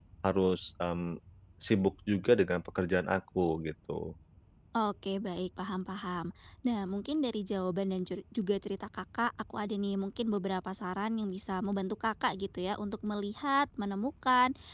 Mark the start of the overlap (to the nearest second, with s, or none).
none